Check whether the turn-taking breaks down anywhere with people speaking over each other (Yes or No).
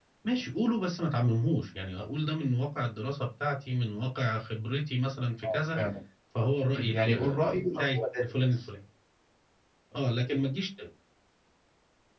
Yes